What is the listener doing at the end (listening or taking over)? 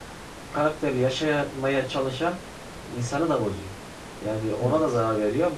listening